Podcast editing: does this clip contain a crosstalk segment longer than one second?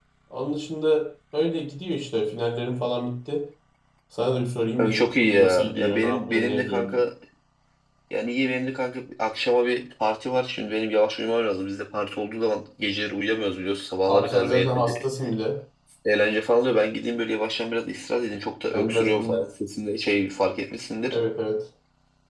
Yes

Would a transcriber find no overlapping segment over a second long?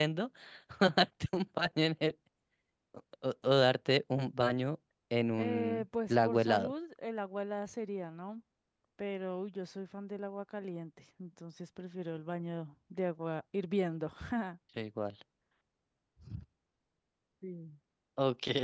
No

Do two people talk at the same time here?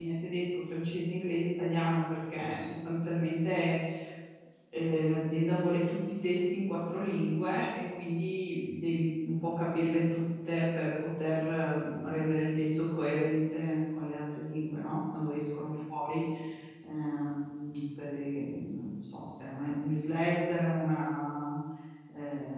No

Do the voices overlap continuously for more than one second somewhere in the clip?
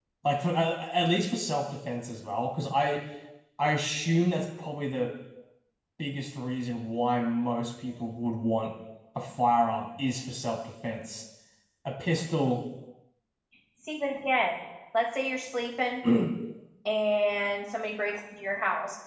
No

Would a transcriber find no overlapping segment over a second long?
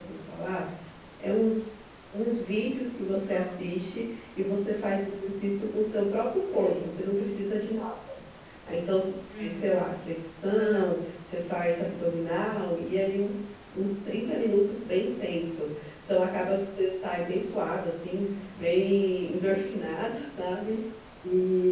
Yes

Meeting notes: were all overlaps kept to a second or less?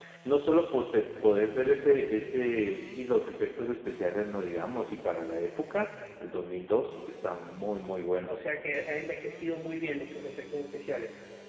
Yes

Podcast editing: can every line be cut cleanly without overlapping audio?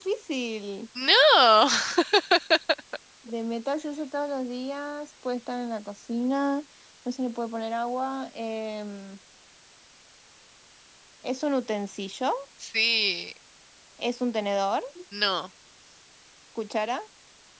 Yes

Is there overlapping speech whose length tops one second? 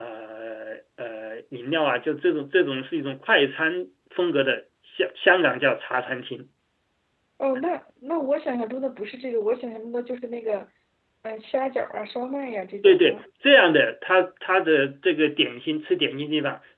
No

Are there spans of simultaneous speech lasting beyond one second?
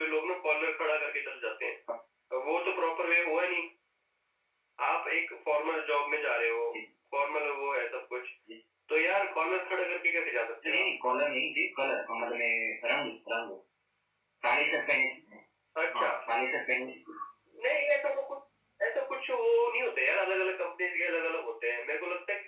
No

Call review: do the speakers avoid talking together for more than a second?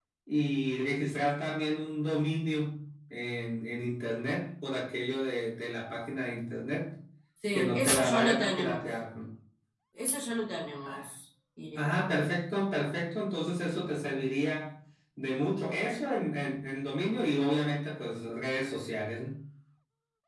No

